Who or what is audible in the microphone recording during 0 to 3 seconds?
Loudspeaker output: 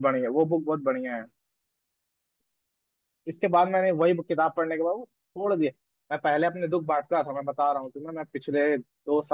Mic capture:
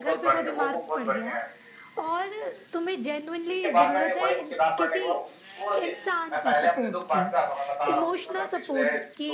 both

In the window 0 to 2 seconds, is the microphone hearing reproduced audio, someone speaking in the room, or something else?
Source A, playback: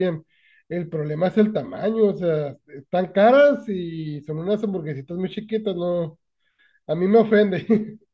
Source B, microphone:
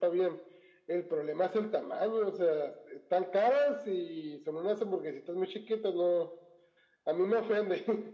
echo only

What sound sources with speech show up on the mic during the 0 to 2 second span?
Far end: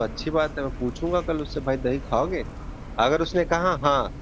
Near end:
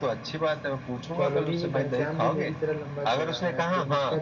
both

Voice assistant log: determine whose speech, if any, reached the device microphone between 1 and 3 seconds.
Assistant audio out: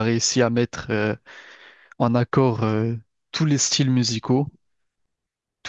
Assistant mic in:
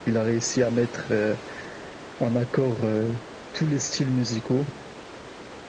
echo only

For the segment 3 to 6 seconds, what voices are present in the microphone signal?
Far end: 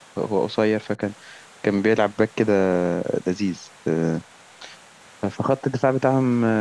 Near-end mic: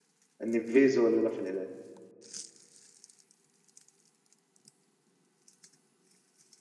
neither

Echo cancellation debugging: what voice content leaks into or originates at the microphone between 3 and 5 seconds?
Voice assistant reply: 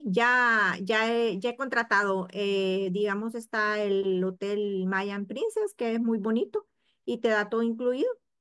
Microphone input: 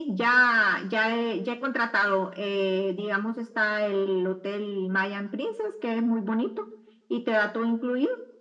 echo only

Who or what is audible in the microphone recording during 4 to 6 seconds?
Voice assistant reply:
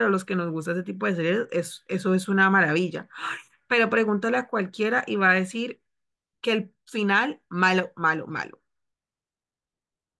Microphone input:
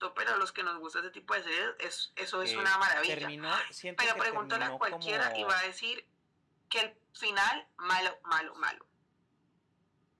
both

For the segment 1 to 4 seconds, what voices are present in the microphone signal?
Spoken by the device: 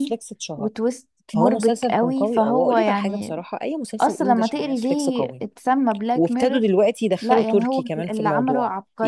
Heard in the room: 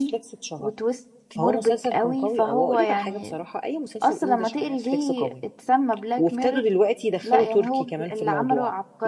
echo only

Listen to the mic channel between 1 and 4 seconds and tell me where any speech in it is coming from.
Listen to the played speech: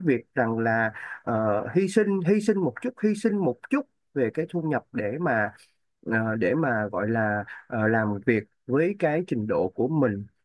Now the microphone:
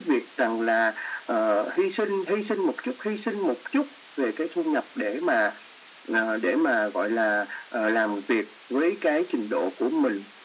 echo only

